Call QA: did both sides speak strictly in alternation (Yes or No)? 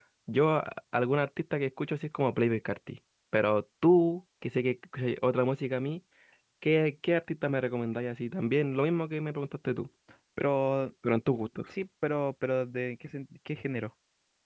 Yes